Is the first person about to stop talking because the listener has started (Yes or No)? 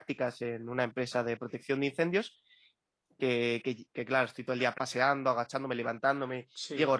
No